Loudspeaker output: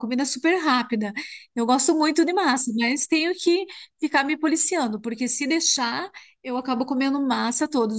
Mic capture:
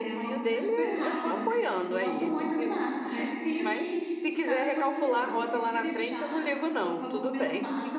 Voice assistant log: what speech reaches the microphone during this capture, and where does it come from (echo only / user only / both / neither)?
both